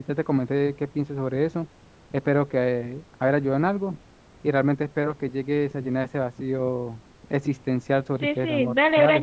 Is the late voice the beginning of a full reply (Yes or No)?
Yes